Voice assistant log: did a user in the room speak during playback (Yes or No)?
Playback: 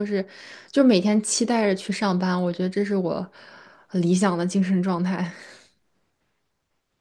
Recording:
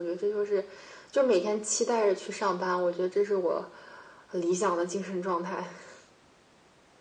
No